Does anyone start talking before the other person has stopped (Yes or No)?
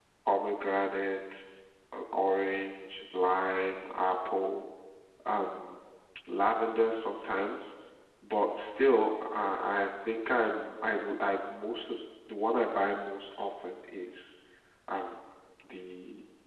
No